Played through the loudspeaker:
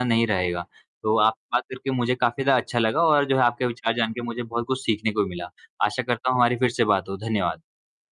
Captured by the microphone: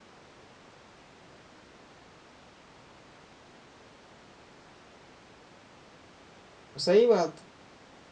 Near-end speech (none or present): present